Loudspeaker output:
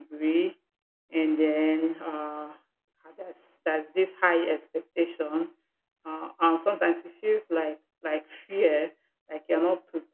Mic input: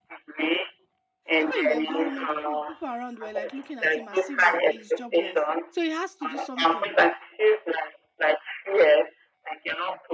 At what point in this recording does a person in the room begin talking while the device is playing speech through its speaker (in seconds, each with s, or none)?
1.4 s